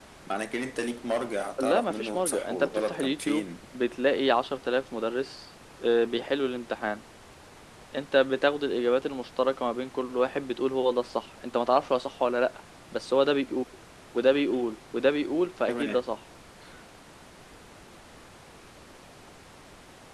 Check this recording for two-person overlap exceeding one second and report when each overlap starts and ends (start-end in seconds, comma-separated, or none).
1.6-3.5